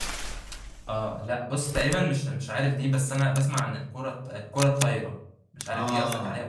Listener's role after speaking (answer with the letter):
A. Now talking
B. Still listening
A